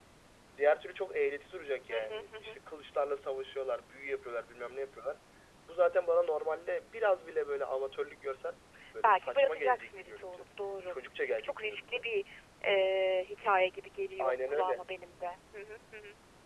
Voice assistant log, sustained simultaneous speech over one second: present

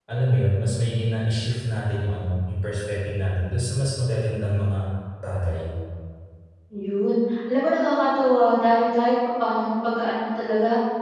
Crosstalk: none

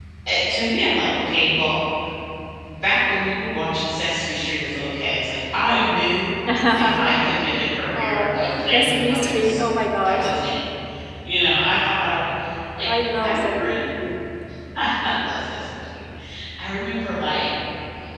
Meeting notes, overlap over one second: present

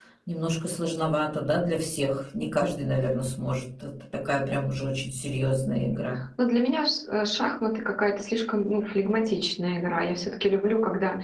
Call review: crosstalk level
none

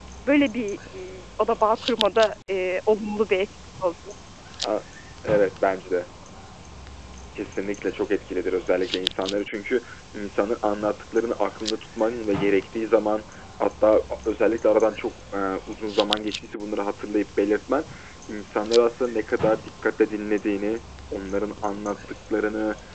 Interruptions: none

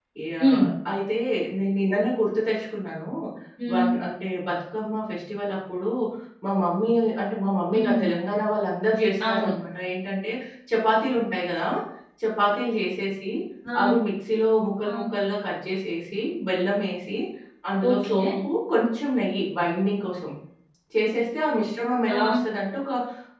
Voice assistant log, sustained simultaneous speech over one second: none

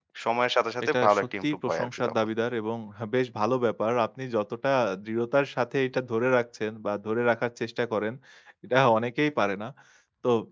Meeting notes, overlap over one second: present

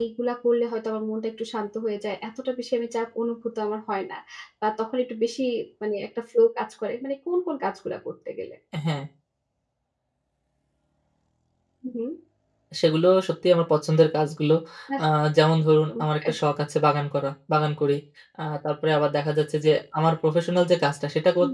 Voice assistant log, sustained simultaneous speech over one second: none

